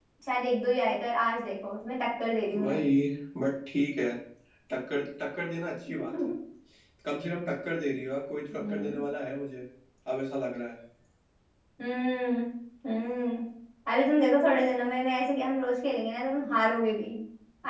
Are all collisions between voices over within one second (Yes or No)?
Yes